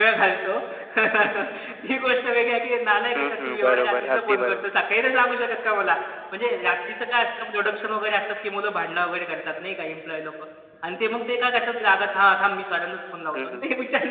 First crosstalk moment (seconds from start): 3.1 s

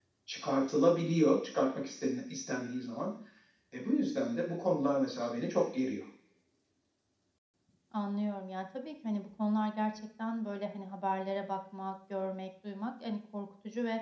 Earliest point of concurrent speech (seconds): none

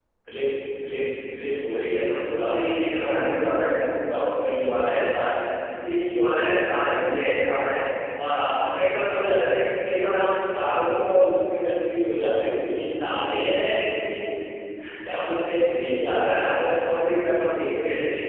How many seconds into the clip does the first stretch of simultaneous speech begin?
none

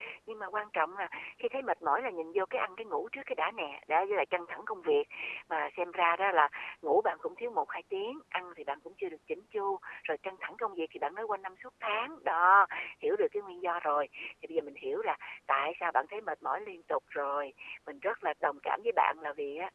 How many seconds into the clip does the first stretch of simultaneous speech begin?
none

